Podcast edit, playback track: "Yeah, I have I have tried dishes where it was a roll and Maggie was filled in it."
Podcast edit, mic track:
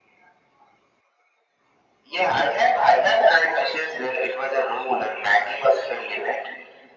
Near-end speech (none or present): none